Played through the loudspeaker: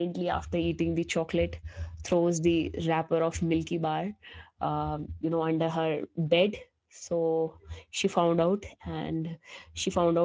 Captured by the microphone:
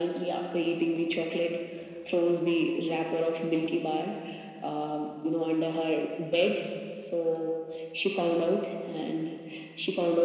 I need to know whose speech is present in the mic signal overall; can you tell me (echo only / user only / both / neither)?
echo only